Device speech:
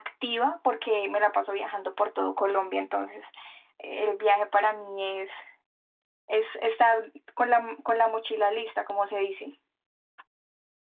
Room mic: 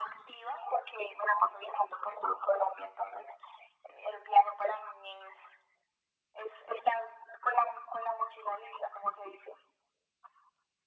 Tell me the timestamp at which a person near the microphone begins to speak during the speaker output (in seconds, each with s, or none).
none